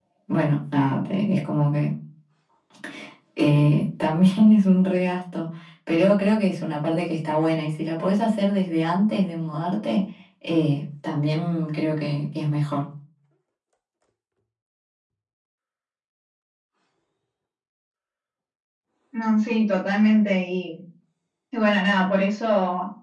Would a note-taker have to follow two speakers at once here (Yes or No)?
No